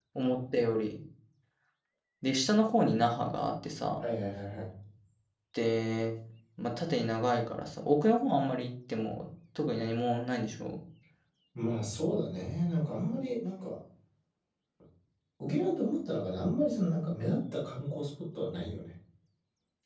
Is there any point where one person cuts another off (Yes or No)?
No